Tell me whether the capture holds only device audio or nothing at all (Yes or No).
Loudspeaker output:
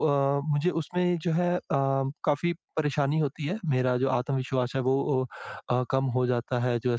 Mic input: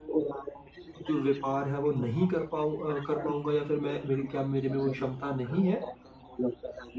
No